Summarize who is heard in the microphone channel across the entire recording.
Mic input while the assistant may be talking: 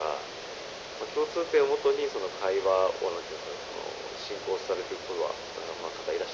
echo only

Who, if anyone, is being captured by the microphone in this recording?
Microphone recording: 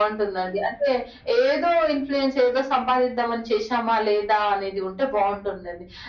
echo only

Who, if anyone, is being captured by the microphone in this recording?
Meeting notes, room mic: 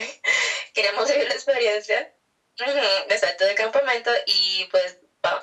echo only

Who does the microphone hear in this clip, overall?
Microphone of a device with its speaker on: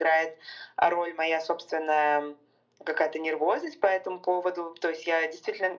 echo only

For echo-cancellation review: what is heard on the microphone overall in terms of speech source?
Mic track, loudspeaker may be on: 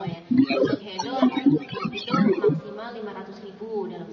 both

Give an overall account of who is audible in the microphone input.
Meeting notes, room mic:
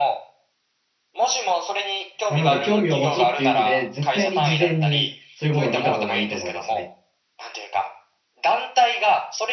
both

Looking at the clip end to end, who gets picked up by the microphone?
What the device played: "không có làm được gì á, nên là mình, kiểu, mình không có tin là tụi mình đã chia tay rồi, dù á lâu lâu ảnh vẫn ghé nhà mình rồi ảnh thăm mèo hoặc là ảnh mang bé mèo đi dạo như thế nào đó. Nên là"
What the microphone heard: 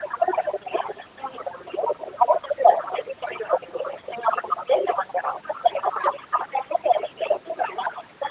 echo only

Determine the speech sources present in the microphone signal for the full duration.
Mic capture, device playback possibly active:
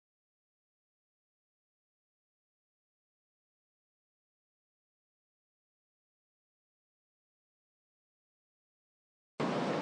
neither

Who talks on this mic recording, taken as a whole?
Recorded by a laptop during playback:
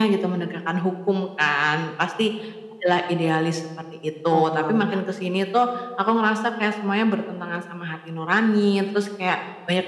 both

